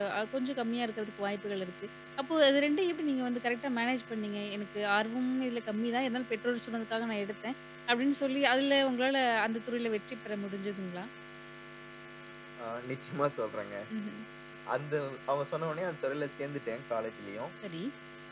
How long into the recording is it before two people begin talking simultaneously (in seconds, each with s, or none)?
none